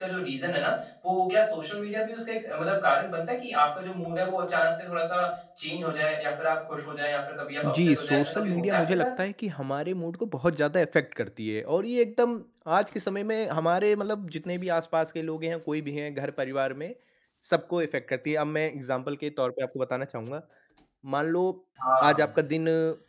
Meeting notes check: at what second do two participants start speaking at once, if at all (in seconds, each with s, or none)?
7.6 s